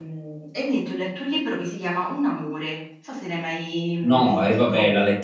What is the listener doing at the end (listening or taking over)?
taking over